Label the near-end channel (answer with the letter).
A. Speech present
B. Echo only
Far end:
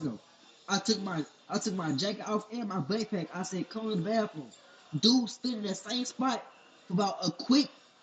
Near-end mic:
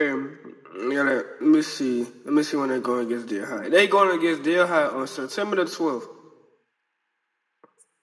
A